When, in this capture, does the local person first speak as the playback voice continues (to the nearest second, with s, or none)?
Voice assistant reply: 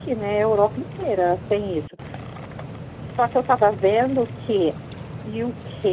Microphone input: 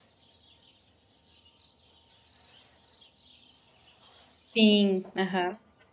4 s